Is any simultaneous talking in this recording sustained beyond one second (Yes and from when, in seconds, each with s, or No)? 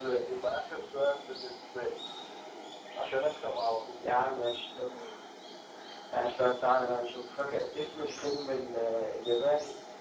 No